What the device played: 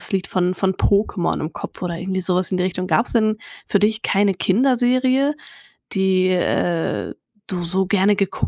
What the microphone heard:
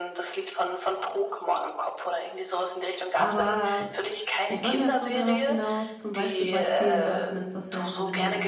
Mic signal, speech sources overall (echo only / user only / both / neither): both